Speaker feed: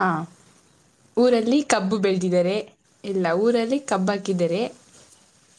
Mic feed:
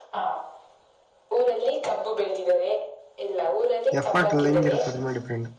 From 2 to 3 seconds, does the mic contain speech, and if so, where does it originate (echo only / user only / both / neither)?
echo only